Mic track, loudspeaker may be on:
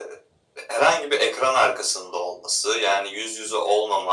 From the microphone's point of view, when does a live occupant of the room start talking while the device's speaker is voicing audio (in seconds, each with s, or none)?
none